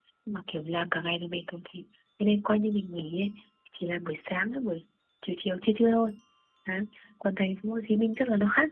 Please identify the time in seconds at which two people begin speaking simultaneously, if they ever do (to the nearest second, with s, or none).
none